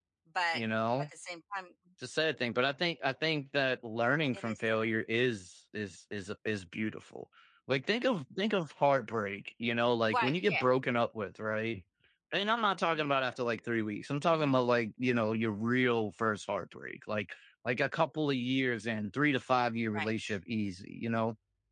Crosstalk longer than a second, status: none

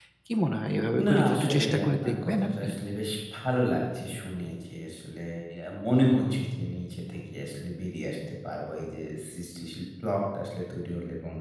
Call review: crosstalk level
present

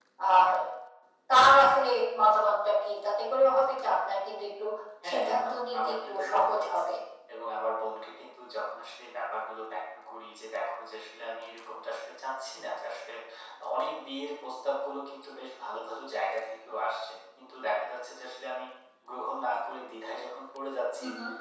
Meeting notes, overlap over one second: present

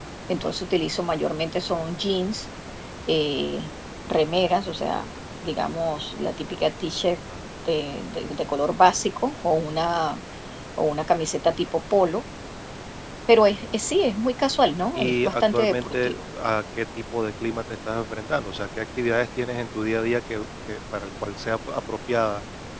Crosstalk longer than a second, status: present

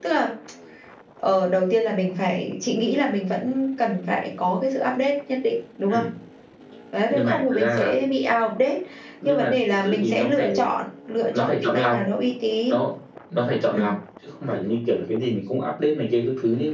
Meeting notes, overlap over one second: present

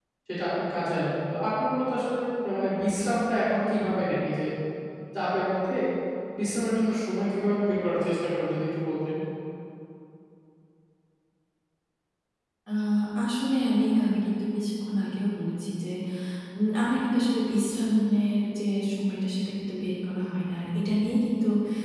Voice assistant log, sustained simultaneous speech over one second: none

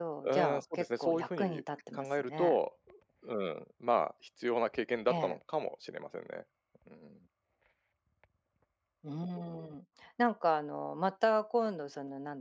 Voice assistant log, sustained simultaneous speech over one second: present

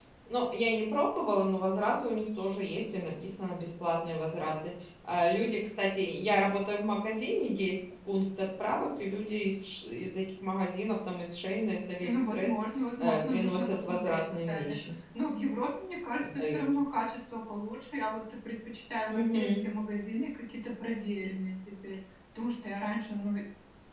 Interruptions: present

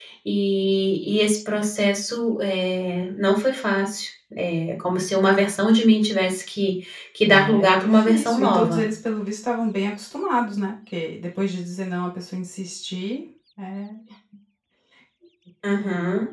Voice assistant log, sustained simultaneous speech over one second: present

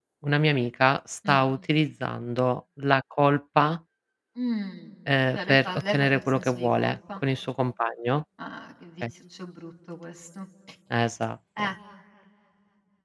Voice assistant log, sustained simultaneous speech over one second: present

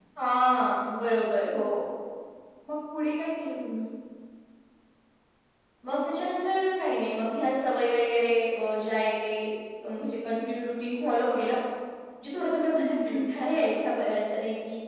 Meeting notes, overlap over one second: none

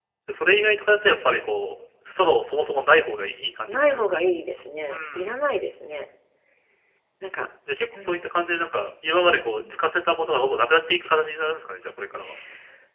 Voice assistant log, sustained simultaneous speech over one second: none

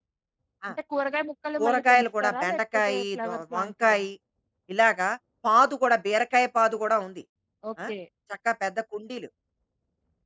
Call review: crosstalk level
present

